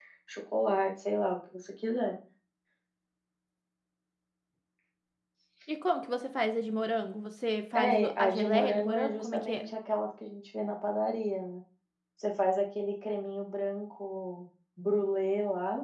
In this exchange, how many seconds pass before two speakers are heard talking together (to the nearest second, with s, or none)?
8 s